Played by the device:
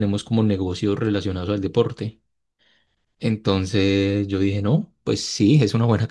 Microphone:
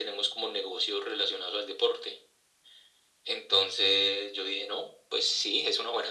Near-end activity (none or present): none